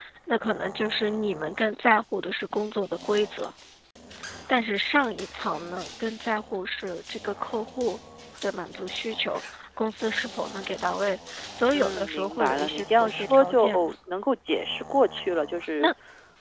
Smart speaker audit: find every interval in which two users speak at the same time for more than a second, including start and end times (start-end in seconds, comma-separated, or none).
11.7-13.9